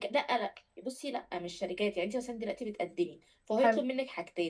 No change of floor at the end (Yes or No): Yes